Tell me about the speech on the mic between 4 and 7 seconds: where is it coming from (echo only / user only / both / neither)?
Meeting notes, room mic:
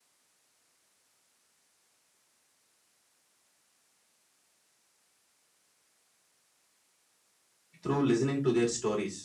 neither